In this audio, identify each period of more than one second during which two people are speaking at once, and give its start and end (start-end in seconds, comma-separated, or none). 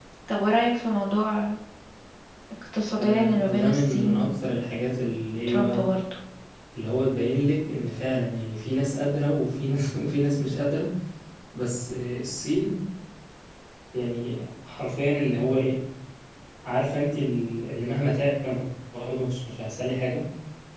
3.0-4.5